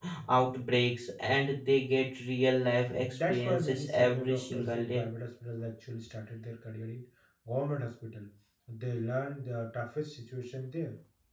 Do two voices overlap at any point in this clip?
Yes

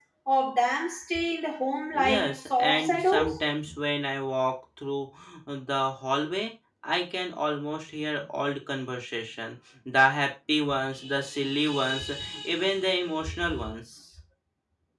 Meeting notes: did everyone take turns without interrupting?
No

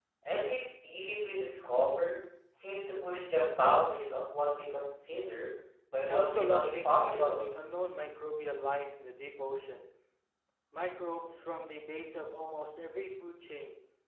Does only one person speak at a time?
No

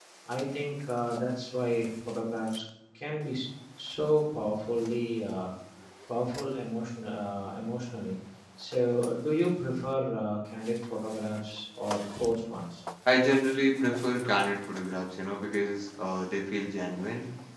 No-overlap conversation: Yes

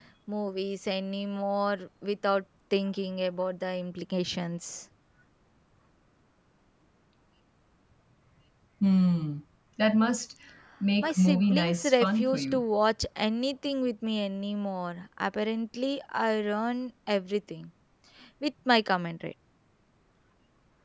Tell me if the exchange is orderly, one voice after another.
No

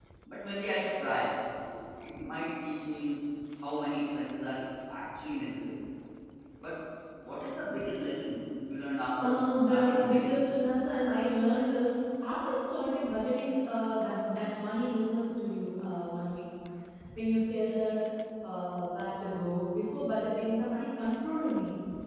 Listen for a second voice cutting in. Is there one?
Yes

